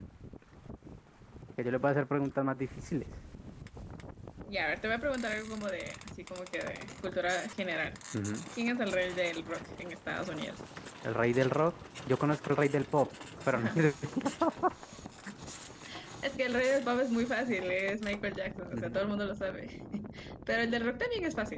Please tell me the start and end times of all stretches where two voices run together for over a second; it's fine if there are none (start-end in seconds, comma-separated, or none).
none